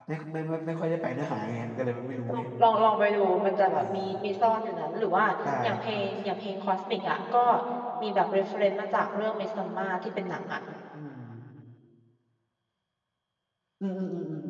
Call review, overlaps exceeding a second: none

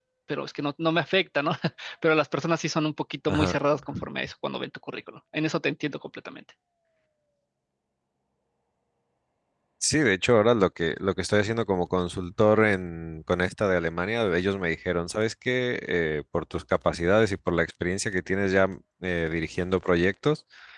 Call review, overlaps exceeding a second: none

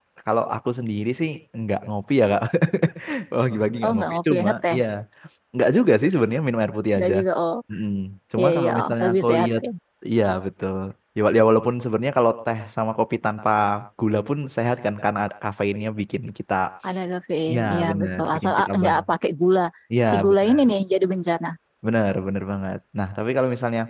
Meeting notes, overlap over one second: present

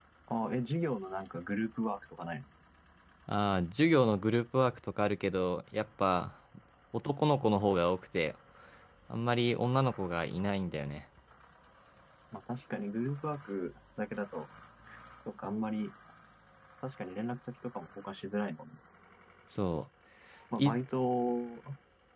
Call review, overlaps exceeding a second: none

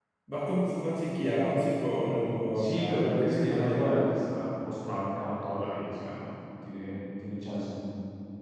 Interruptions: present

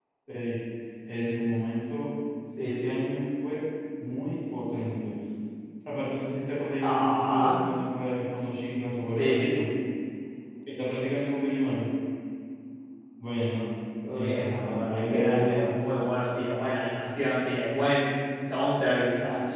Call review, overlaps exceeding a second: present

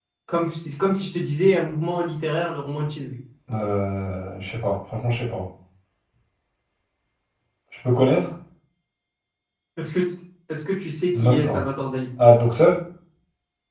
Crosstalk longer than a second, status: none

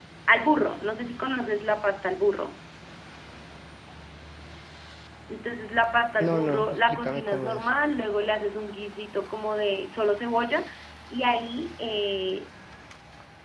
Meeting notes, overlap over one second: present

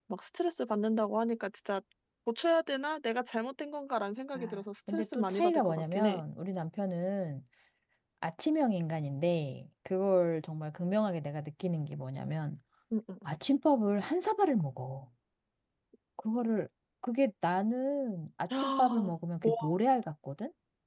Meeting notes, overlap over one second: present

